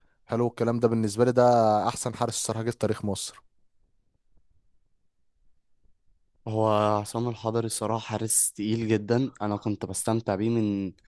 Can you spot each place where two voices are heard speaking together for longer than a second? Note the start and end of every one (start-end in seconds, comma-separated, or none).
none